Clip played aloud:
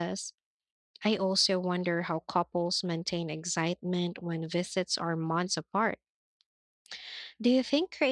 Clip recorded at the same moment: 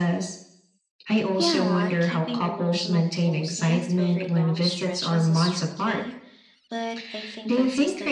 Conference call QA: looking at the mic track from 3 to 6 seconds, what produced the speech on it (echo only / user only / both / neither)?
both